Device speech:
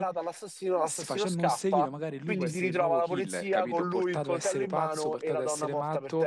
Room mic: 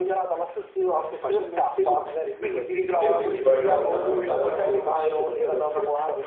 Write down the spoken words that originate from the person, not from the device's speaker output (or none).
E quindi poi una volta affrontata la notte...